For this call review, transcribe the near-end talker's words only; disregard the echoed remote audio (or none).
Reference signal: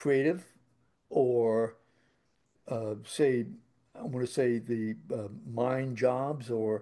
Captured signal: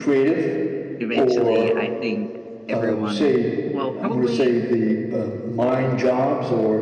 eventually, I think everyone, well, probably,